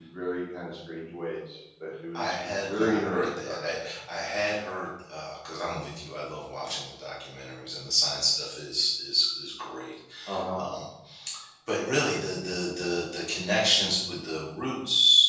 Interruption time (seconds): 2.1 s

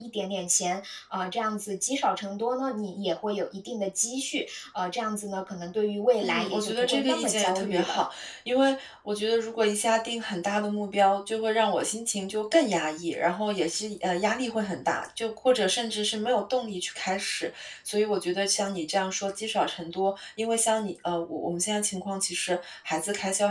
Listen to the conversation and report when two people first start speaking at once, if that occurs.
6.2 s

